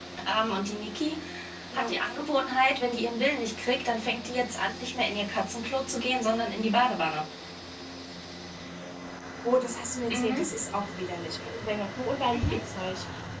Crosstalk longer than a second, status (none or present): none